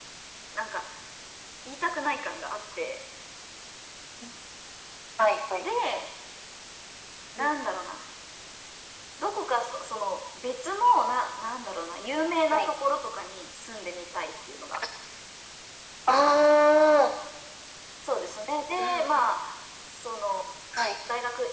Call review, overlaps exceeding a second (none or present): none